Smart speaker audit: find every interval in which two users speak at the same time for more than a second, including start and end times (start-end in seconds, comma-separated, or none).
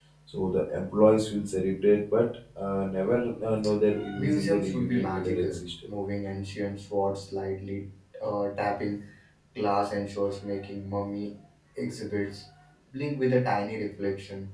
4.2-5.9